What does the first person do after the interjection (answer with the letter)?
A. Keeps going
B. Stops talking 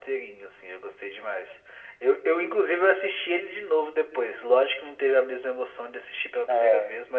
A